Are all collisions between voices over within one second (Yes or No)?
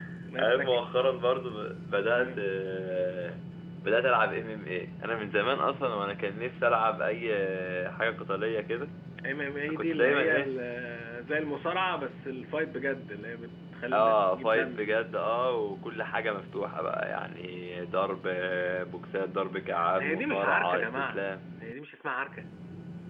No